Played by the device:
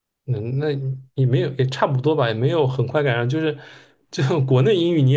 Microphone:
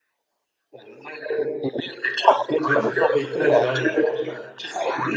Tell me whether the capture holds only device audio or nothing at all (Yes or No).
No